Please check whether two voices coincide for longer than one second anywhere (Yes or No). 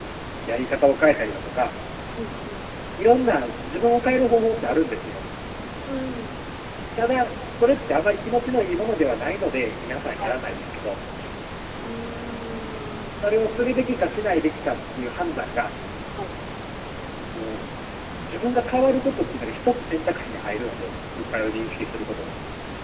No